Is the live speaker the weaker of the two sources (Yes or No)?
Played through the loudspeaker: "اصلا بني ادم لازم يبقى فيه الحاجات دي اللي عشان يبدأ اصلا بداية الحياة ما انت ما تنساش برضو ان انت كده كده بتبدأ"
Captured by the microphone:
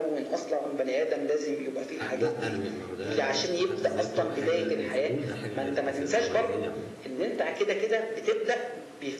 Yes